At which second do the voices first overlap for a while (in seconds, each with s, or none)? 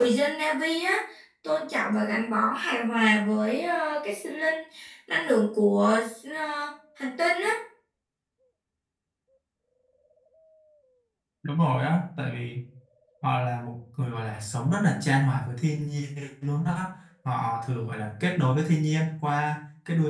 none